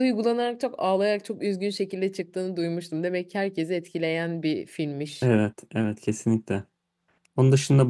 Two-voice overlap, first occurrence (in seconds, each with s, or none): none